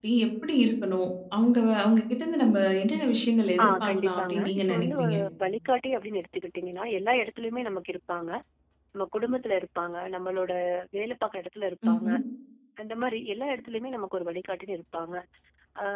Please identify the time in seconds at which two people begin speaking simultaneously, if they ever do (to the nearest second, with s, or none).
4 s